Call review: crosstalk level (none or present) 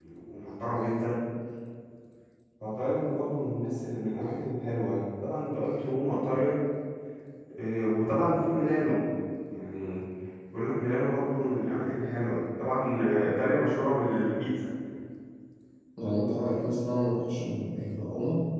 none